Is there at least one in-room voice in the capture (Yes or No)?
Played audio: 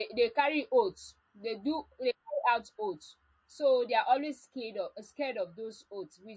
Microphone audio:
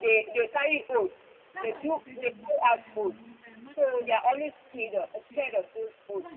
Yes